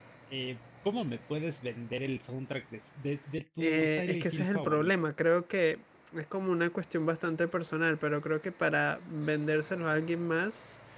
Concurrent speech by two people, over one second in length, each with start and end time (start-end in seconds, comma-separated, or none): 3.6-4.9